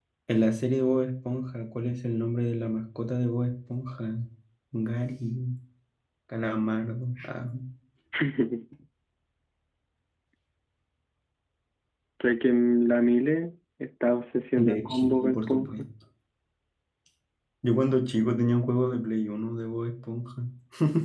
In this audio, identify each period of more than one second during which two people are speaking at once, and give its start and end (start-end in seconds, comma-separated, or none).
14.6-15.8